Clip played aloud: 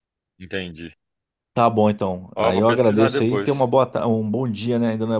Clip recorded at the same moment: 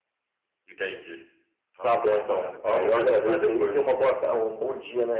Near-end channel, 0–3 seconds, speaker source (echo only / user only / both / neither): both